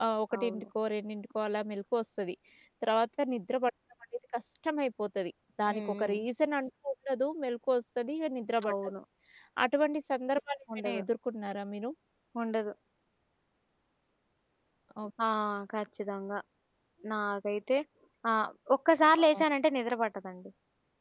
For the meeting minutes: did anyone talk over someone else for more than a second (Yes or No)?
No